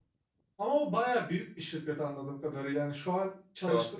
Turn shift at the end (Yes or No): No